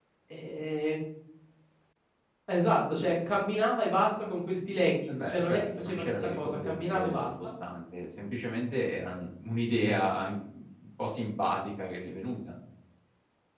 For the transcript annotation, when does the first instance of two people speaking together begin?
5.1 s

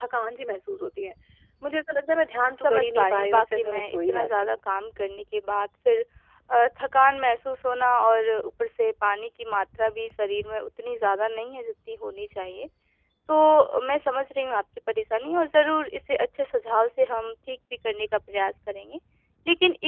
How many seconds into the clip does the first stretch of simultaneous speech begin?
2.6 s

